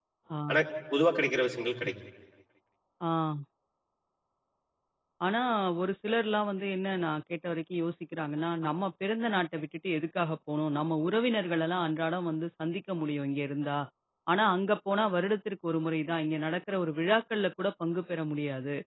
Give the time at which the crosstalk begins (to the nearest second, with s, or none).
none